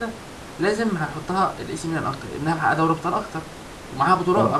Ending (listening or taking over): listening